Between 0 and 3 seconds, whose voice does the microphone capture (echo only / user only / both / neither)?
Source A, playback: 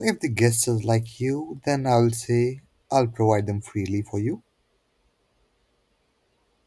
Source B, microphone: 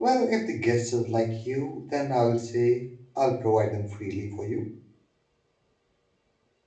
echo only